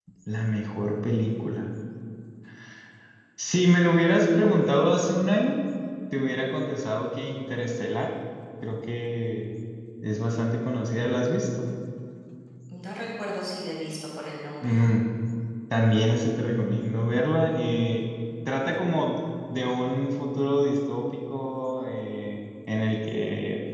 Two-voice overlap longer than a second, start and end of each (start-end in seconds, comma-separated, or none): none